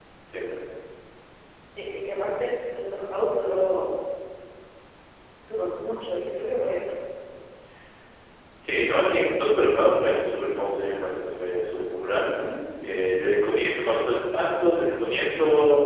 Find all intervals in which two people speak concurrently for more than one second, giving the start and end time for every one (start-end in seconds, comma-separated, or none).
none